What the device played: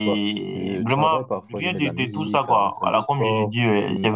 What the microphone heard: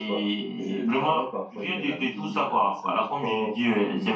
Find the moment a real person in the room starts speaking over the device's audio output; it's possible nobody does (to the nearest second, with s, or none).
none